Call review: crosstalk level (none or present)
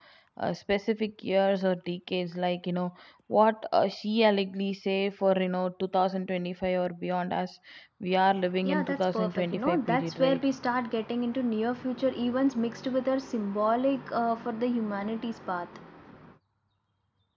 present